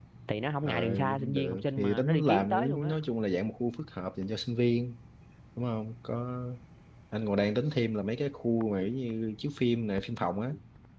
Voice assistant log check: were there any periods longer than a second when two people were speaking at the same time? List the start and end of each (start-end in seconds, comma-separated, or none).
0.6-3.0